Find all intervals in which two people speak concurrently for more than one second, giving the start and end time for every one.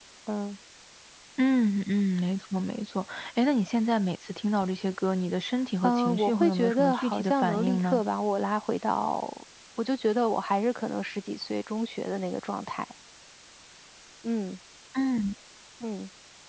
5.8-8.0

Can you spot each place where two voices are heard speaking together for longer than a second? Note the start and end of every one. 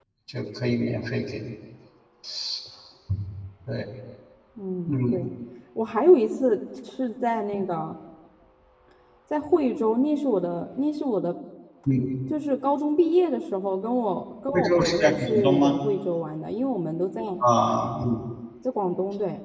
14.5-15.8

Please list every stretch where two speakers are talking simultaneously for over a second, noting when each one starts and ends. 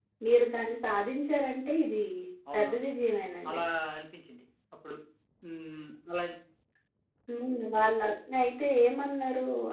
none

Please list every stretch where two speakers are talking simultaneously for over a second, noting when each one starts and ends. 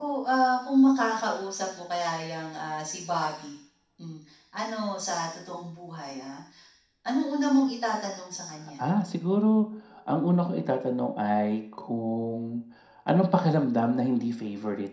none

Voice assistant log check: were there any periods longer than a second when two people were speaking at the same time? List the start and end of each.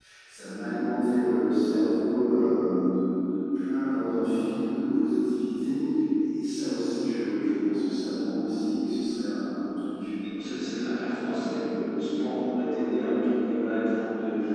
none

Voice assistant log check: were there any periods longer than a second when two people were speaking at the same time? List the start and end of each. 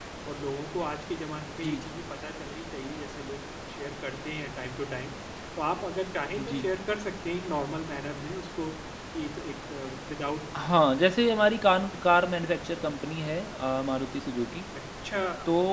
none

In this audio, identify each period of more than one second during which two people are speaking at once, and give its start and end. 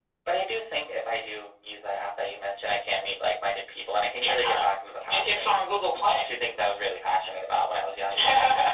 none

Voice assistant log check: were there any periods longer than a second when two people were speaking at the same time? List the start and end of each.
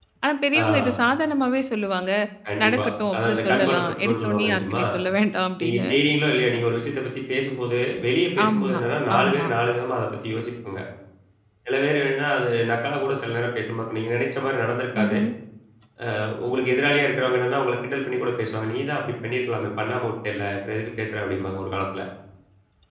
2.6-4.8

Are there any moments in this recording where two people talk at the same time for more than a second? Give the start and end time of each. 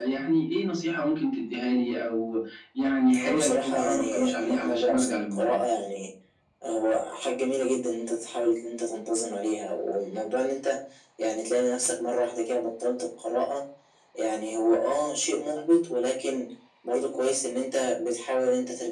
3.2-5.6

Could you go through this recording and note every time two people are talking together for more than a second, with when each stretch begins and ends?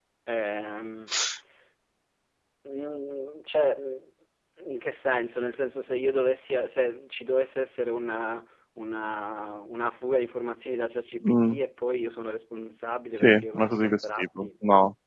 13.2-14.5

